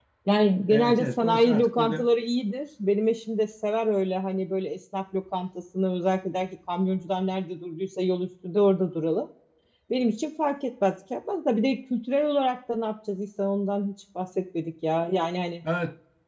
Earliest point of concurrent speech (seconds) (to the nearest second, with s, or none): 1 s